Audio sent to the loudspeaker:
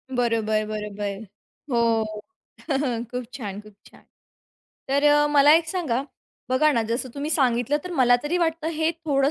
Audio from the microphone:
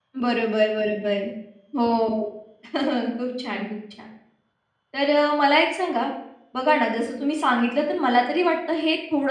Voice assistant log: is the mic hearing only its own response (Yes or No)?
Yes